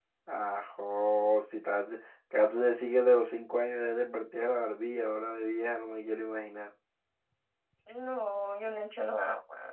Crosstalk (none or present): none